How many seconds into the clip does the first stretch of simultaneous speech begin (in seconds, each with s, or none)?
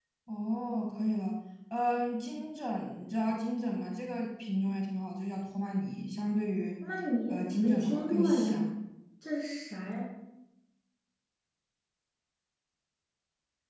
7.3 s